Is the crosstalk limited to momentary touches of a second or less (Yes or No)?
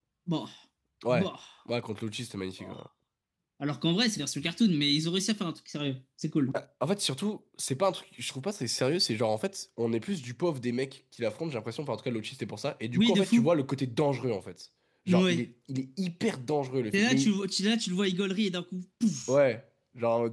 Yes